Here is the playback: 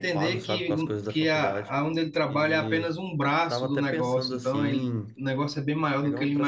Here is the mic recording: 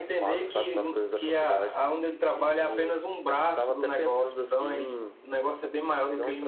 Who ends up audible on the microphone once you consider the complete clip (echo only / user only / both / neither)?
echo only